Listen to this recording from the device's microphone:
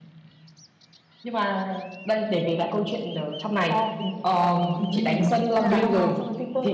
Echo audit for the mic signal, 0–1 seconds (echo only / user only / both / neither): neither